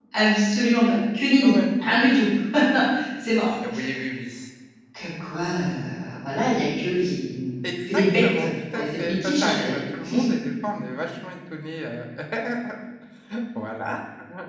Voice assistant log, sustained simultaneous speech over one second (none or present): present